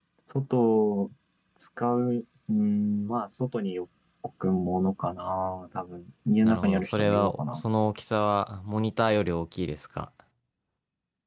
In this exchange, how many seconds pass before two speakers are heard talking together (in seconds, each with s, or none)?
6.4 s